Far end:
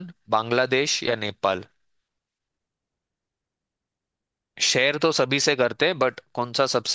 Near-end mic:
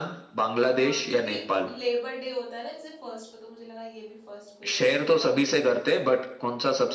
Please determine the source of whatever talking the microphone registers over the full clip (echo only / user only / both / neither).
both